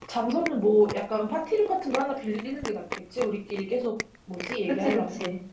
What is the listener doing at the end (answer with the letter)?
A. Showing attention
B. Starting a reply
B